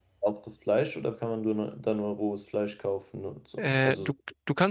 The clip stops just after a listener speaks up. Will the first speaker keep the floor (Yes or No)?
No